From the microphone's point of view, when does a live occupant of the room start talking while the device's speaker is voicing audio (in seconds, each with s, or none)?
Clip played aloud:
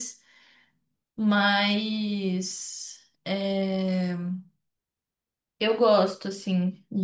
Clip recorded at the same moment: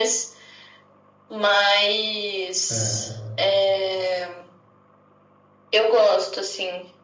2.7 s